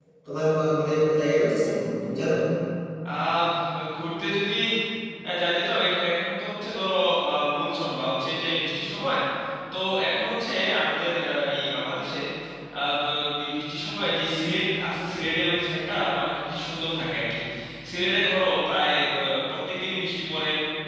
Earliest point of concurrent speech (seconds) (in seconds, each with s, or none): none